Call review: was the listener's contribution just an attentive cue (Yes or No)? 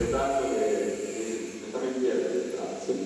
No